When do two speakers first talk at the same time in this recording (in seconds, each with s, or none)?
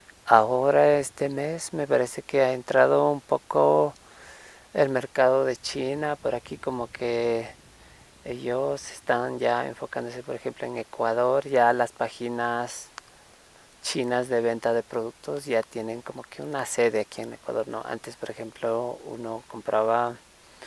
none